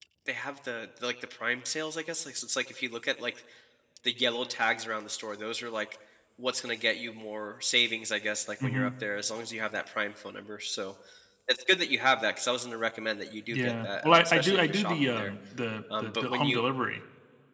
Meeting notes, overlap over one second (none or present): present